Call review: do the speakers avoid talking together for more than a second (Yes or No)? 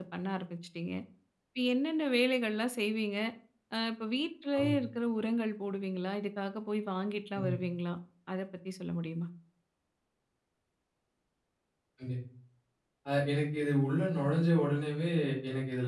Yes